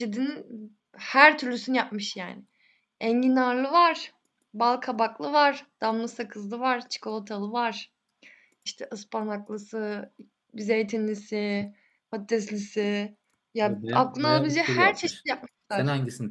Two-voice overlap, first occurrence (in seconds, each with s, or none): 13.6 s